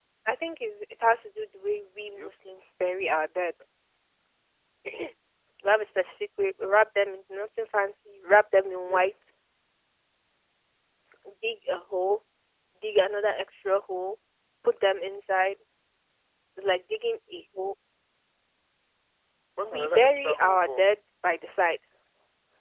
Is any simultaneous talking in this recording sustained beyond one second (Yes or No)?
Yes